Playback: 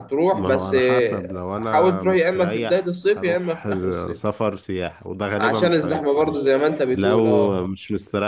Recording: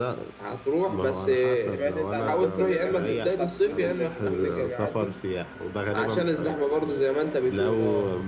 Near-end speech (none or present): present